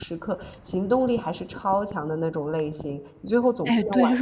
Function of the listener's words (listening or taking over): taking over